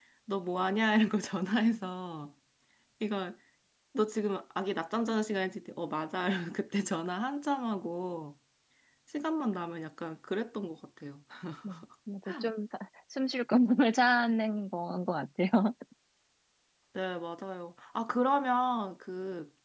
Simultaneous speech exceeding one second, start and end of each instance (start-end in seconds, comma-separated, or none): none